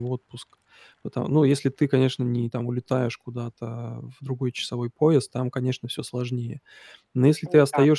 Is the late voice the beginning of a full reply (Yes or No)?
No